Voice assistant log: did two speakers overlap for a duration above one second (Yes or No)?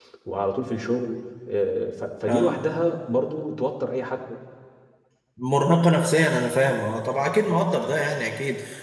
No